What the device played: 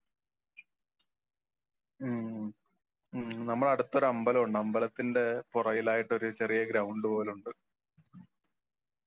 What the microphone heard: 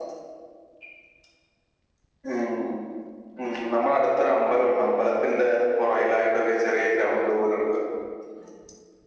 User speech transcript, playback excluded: none

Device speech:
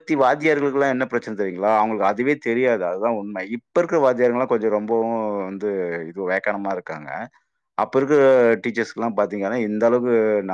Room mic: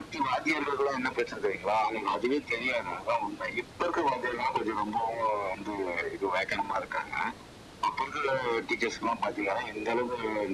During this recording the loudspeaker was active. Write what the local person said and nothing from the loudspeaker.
none

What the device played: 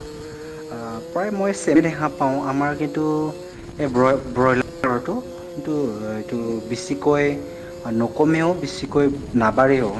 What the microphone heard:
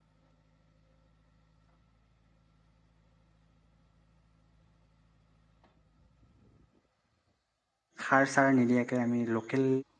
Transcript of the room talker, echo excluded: সাৰ চাৰ নিদিয়াকৈ আমি লোকেল

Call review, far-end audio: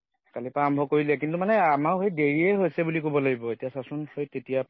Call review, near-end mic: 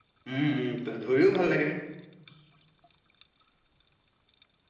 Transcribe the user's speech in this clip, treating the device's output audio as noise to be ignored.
উম, উম, ধৰিও ভাল লাগে

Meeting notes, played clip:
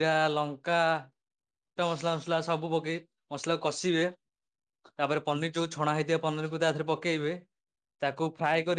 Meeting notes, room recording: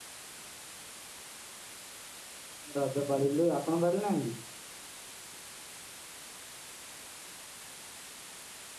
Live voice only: ରଜ ପାଳିଲୁ ଆପଣ ପାଳି ନାହାନ୍ତି।

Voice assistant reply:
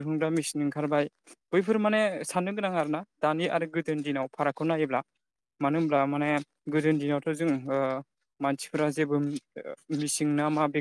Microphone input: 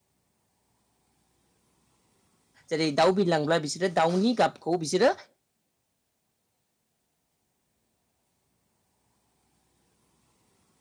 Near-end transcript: जेरै दाउ बिरलांब्ला बिसोरो दाउनि गाबखौ बिसोरो

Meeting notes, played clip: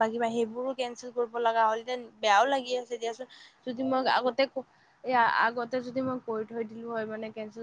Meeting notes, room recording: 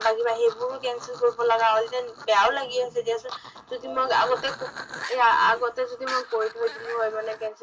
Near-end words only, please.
none

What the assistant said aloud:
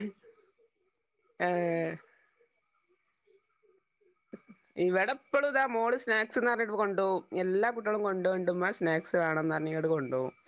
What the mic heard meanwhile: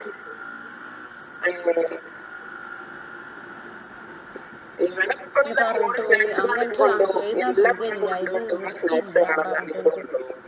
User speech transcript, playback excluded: ഇന്ന് പറഞ്ഞിട്ട് ഓന് അങ്ങൻത് ആ എഴുതാൻ സുഖല്ല്യ ഇത് വൃത്തിയില്ല പറഞ്ഞിട്ട് ഓന്

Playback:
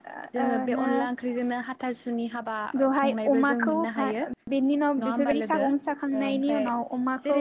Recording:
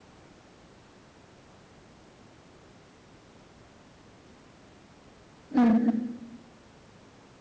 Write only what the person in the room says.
उम उम

